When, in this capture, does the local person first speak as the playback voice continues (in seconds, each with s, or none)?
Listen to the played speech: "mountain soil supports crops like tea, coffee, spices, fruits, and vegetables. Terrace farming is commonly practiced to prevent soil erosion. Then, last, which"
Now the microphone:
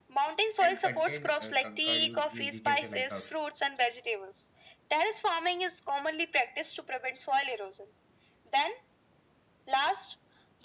0.6 s